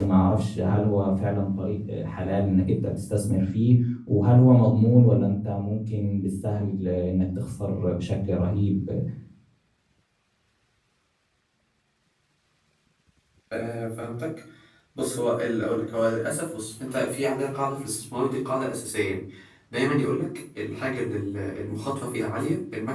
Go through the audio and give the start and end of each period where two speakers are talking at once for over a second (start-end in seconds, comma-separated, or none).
none